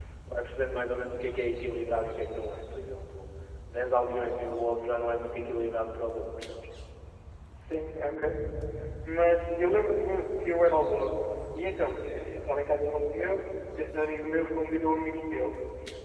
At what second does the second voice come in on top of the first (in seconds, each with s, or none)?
none